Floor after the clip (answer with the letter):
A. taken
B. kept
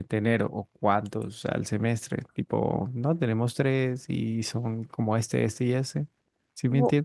A